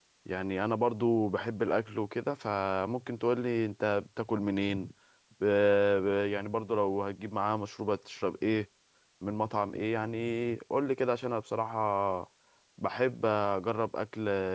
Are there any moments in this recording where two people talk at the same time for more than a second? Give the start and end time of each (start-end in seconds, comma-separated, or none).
none